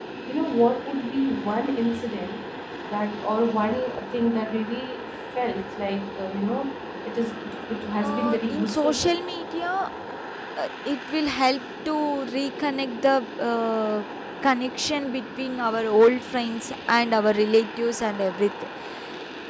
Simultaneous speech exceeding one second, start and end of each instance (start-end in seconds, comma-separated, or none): 8.0-9.2